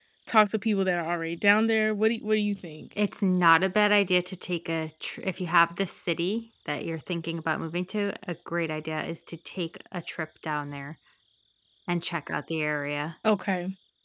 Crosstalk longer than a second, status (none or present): none